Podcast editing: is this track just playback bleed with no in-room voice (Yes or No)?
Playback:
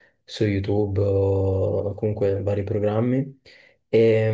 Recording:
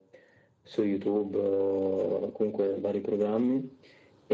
Yes